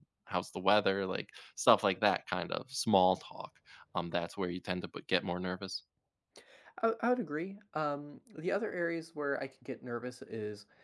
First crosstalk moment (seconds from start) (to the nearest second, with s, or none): none